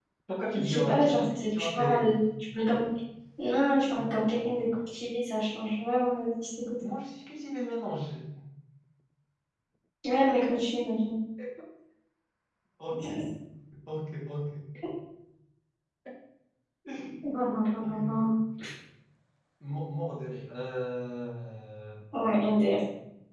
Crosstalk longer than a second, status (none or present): present